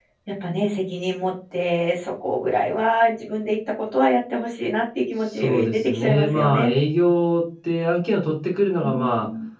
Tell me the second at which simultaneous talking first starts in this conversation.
5.3 s

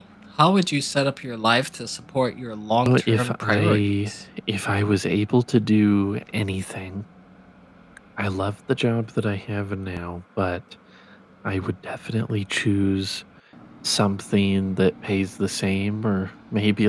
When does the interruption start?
2.9 s

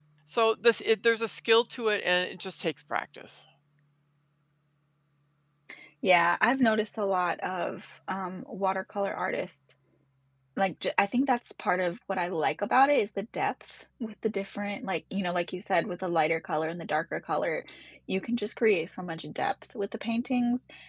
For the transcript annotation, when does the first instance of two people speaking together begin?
none

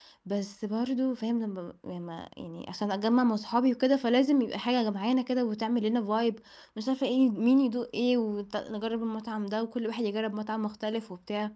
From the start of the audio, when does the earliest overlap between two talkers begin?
none

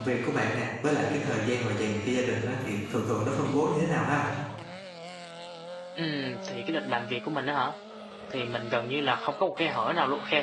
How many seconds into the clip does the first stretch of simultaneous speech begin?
none

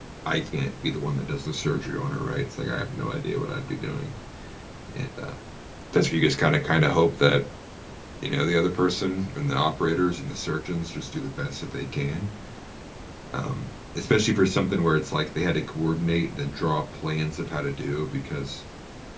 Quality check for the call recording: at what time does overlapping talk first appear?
none

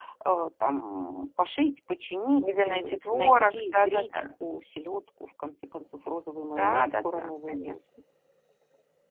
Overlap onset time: 2.4 s

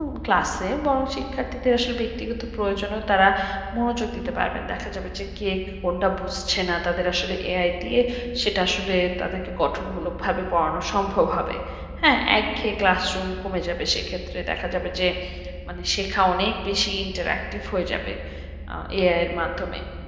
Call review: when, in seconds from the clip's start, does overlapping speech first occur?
none

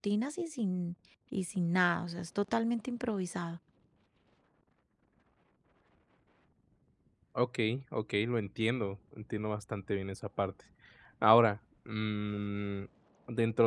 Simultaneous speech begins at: none

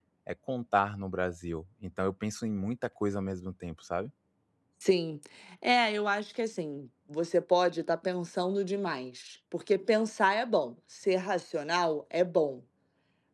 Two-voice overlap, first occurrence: none

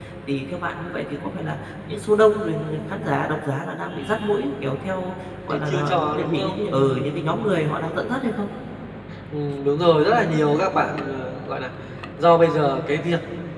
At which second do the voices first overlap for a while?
5.5 s

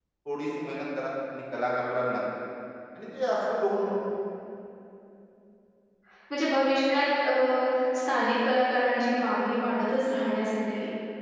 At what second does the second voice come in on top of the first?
none

